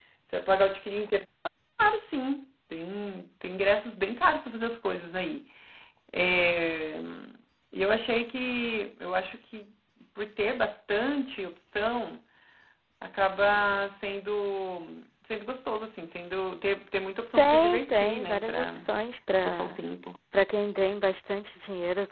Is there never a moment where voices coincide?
No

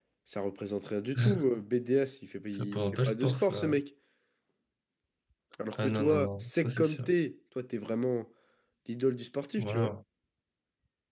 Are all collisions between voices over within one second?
No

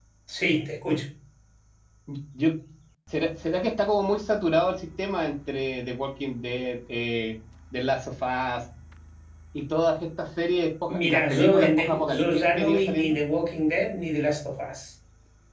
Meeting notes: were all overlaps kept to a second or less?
No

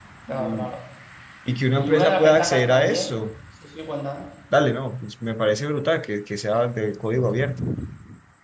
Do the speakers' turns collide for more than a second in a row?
Yes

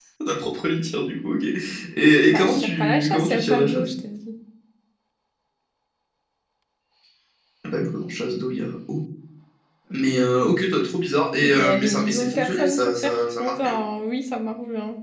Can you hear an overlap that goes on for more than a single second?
Yes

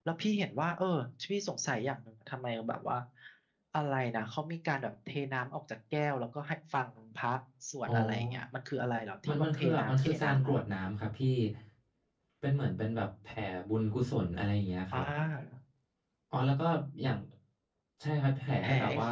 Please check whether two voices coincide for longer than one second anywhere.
Yes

